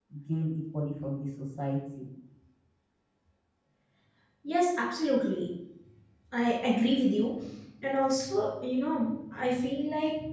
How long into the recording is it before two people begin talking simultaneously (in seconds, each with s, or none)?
none